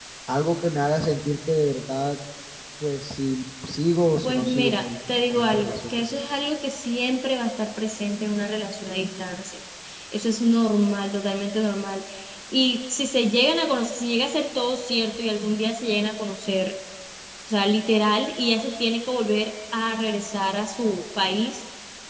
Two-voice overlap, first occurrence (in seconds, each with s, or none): 4.2 s